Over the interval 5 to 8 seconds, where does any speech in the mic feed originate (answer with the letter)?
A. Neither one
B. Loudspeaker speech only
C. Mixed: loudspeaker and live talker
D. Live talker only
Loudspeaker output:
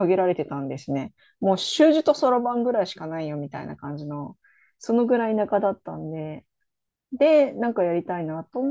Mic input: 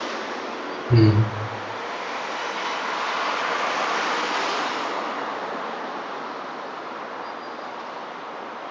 A